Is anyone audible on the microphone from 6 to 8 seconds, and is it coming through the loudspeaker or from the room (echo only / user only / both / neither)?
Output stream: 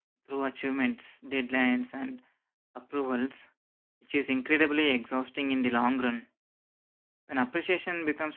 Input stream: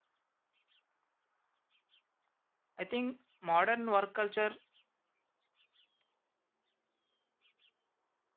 neither